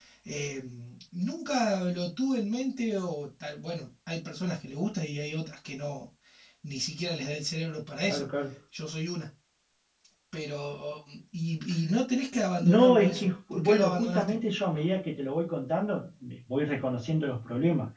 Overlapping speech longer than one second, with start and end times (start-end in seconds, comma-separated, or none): 12.6-14.4